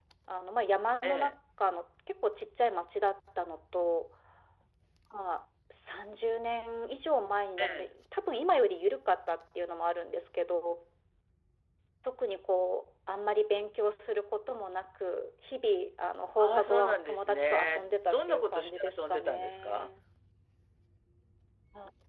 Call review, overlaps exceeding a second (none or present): present